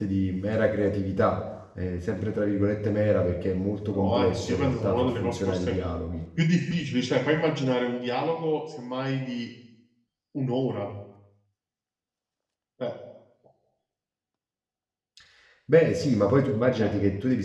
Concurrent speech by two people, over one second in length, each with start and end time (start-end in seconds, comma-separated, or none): 3.9-5.7